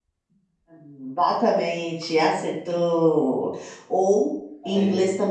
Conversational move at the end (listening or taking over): listening